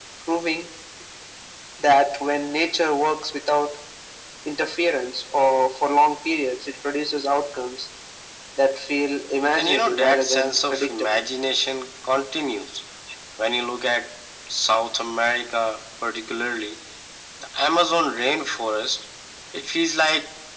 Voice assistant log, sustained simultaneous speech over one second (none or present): present